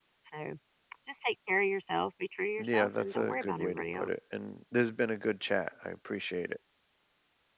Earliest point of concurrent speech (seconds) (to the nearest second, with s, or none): 3 s